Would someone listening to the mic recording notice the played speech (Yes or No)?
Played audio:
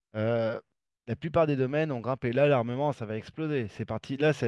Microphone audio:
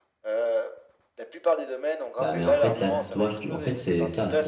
Yes